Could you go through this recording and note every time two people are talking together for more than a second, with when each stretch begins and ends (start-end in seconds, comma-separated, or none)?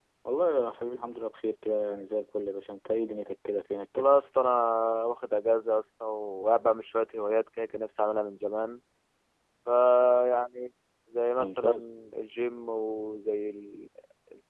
none